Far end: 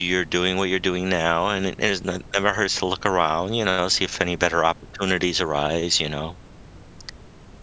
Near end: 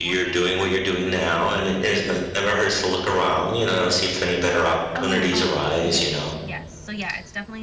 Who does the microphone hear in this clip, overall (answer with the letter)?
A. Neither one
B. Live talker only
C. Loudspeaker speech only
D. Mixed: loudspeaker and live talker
D